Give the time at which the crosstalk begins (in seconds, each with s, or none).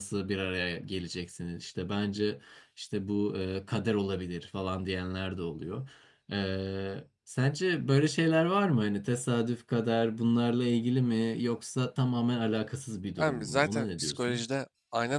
13.2 s